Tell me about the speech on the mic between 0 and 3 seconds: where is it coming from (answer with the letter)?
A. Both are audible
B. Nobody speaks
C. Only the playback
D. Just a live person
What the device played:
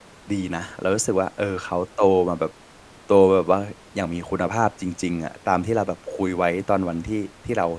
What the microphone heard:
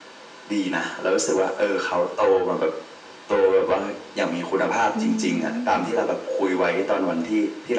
C